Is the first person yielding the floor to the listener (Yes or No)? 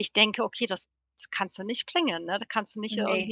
No